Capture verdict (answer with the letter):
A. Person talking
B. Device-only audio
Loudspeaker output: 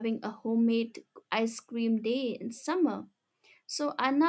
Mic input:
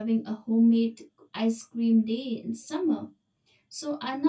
B